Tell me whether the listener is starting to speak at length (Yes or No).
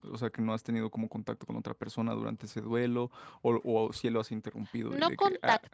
Yes